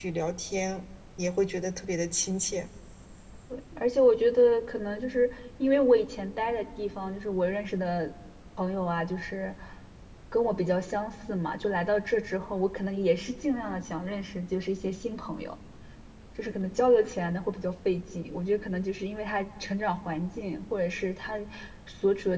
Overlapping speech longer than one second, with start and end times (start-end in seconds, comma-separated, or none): none